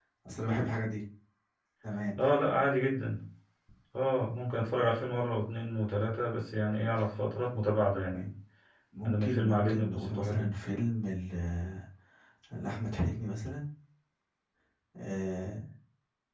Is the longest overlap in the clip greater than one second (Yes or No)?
Yes